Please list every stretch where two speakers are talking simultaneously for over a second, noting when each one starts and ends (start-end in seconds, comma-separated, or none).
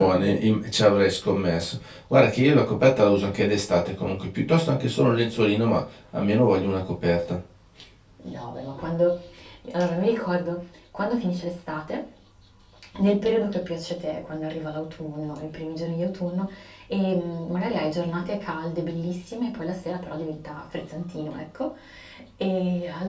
none